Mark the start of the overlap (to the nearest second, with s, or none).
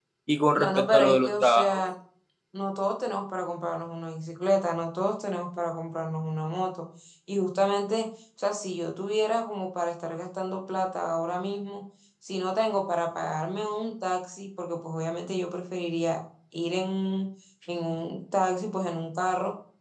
1 s